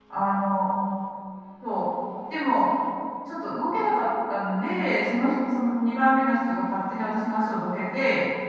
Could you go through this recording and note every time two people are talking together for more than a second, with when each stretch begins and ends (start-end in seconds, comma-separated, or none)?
none